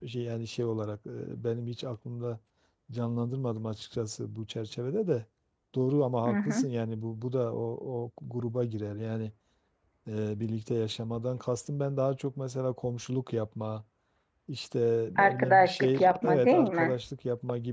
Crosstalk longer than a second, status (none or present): present